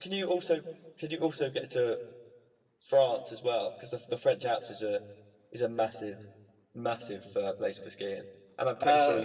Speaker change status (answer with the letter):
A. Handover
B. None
B